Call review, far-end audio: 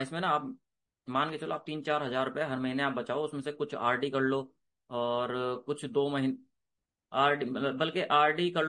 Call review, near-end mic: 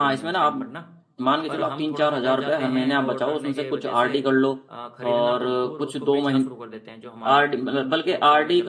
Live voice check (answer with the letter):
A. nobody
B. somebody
B